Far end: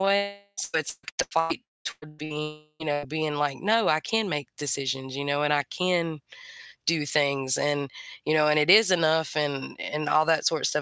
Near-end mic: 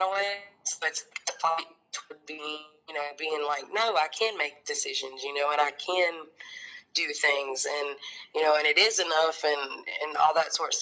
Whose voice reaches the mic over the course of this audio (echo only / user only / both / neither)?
echo only